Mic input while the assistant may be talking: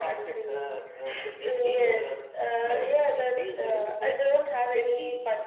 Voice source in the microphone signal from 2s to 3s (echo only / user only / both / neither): echo only